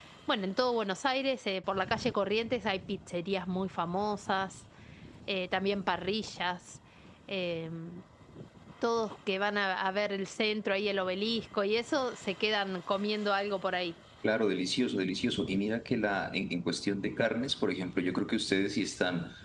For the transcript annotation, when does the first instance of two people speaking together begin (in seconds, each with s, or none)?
none